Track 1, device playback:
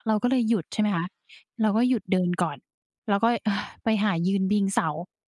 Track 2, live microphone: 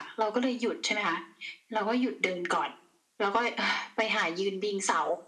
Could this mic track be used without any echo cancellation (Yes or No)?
No